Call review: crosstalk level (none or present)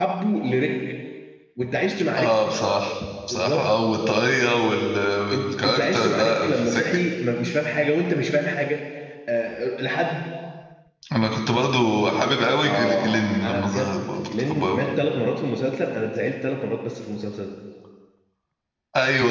present